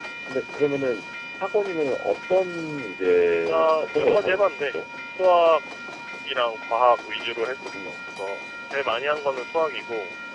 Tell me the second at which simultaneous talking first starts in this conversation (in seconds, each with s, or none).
3.5 s